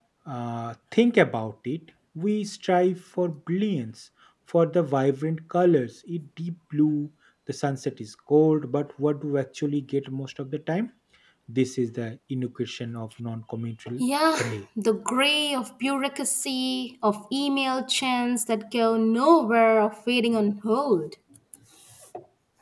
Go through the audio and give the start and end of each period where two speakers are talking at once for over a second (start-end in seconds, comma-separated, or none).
none